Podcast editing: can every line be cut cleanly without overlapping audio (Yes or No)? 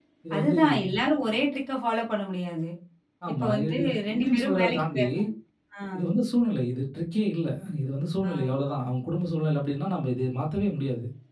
No